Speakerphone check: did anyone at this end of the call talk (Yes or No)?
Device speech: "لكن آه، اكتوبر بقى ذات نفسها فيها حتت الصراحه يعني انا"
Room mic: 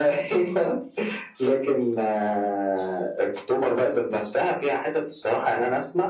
No